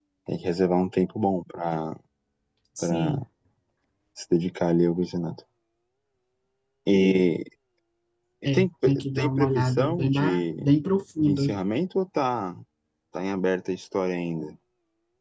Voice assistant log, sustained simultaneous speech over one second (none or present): present